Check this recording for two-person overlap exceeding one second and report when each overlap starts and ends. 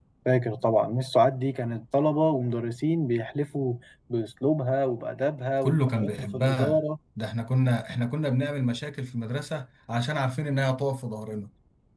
5.6-6.8

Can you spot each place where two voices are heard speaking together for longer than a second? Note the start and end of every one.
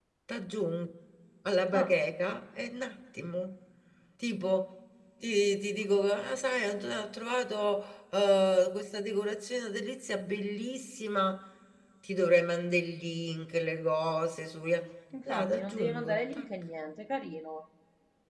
15.2-16.5

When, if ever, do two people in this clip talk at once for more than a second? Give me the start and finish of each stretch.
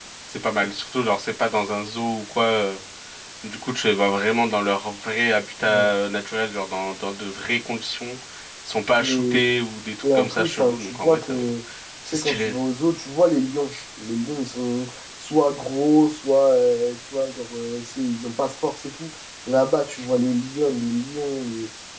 10.1-11.4

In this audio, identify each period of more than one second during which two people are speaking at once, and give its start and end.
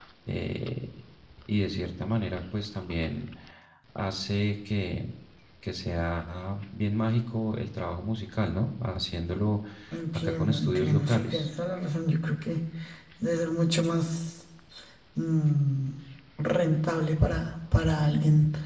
10.2-11.5

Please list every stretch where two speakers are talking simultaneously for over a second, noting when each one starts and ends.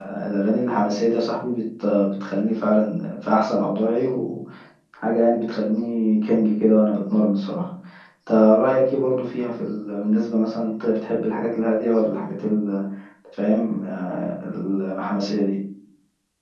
none

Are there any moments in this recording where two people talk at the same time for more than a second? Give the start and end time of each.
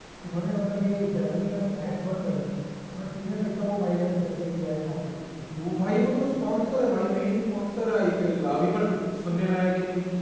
none

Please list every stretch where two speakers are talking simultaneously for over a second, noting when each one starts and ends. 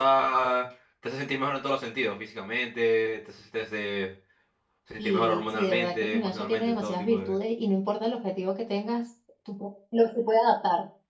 5.0-7.4

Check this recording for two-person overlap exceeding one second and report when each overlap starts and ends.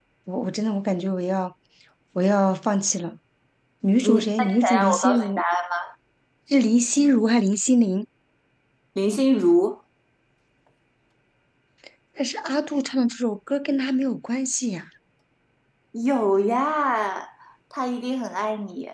4.0-5.4

